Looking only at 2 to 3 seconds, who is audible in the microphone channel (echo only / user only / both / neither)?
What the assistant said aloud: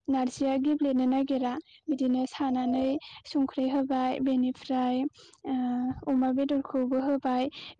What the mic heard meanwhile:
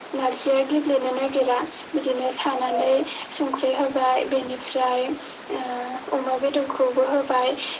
echo only